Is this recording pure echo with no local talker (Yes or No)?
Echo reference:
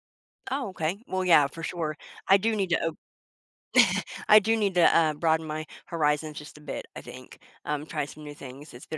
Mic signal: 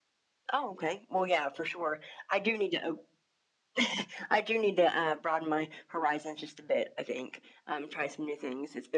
Yes